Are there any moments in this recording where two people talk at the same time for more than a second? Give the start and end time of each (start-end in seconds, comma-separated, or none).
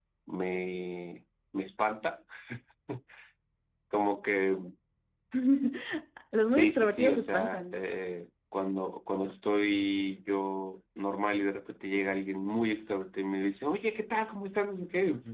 6.5-7.8